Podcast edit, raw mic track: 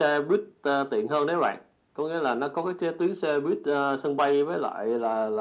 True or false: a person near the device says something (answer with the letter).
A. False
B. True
A